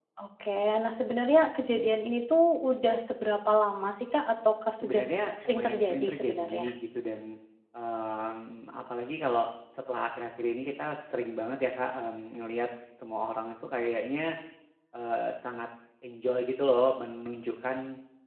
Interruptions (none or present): present